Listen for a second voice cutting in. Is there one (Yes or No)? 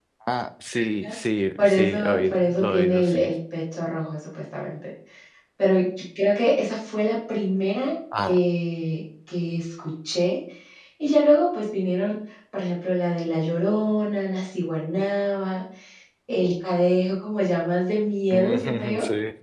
Yes